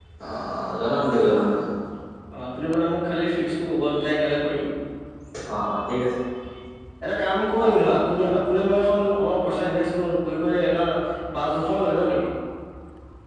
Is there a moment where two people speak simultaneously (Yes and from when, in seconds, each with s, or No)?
No